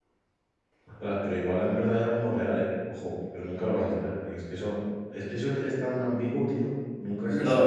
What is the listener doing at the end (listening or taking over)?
taking over